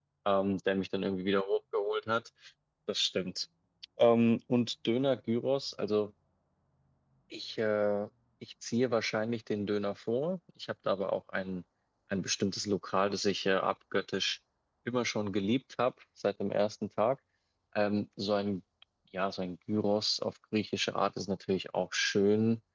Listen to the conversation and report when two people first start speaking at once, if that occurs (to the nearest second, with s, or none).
none